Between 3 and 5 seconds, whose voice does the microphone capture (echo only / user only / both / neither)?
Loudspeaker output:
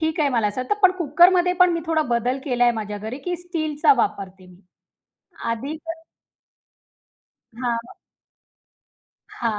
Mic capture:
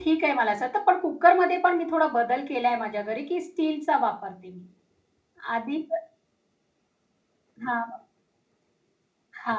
echo only